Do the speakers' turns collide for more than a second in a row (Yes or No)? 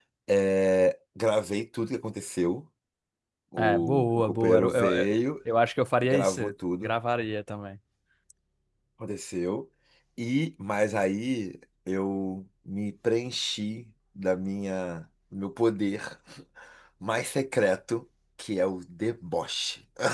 Yes